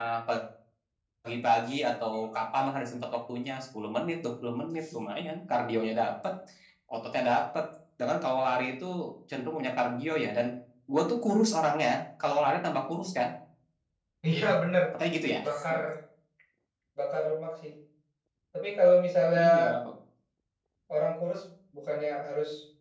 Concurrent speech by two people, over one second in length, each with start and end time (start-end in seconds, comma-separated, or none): none